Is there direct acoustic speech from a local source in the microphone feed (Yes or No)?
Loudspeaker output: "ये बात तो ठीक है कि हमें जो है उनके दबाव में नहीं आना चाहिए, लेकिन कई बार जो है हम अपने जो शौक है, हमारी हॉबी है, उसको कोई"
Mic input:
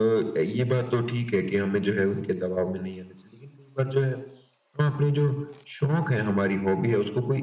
No